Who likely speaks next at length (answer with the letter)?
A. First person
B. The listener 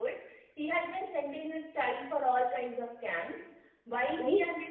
A